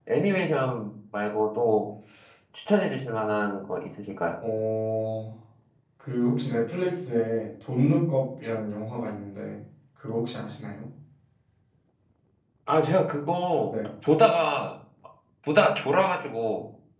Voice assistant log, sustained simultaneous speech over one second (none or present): none